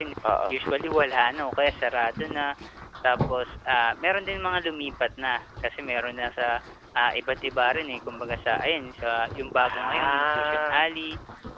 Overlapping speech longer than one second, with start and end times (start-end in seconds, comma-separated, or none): 9.6-10.8